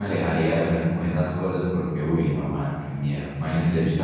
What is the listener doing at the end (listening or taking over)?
listening